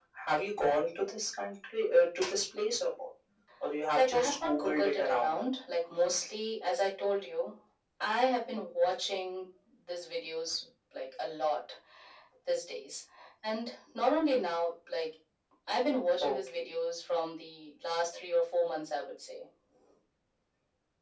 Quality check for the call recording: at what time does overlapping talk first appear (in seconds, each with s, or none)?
4.0 s